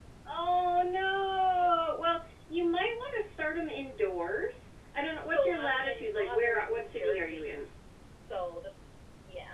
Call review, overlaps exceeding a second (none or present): present